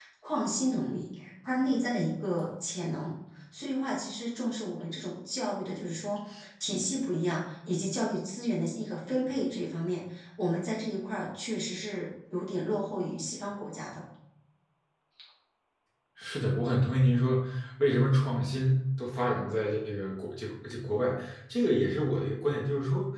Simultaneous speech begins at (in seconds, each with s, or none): none